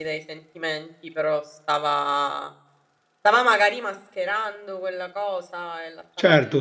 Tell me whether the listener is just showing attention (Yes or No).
No